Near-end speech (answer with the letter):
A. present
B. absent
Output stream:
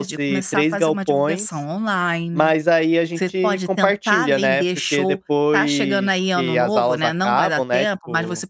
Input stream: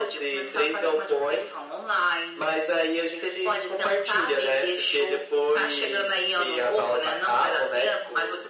B